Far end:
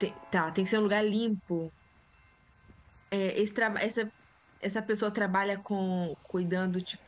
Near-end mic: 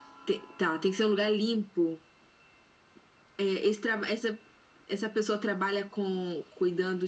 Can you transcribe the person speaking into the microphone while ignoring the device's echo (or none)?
none